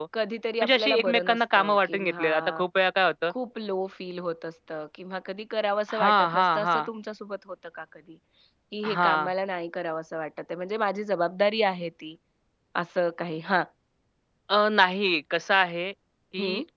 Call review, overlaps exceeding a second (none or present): present